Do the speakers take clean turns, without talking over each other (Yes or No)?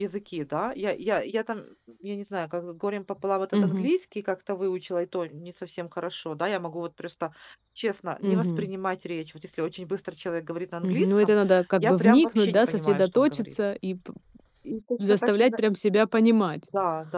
No